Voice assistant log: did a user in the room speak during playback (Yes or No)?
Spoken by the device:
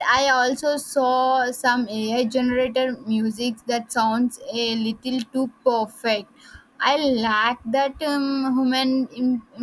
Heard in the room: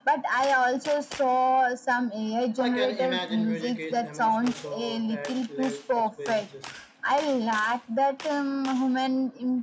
Yes